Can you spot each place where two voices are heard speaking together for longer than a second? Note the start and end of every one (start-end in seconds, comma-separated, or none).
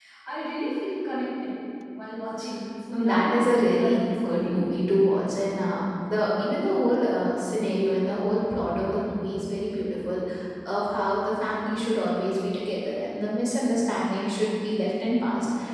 2.9-4.5